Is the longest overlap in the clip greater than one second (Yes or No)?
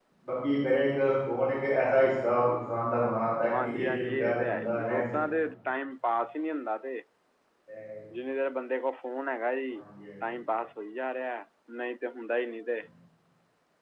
Yes